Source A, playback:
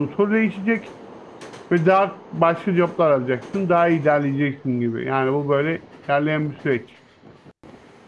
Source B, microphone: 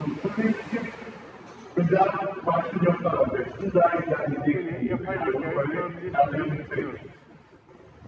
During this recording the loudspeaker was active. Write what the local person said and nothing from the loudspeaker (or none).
gene yapay zekaya sorabilirsin diye düşünüyorum.